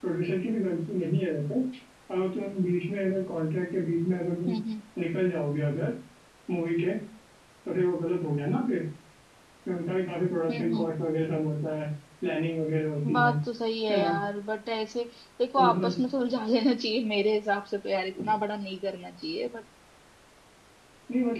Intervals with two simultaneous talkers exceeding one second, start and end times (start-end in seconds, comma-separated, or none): none